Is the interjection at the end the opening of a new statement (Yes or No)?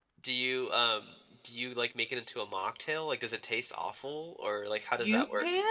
Yes